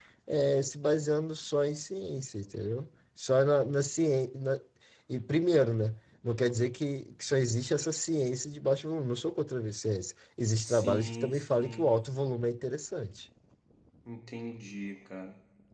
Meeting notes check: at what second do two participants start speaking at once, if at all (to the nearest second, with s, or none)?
11 s